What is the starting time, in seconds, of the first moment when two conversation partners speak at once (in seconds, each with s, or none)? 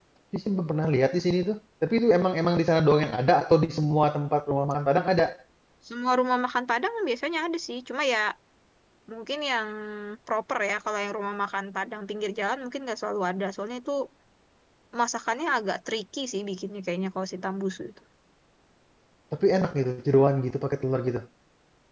none